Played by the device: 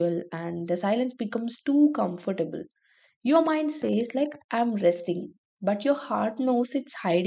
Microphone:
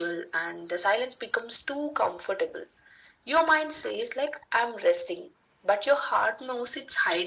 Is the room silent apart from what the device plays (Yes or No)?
Yes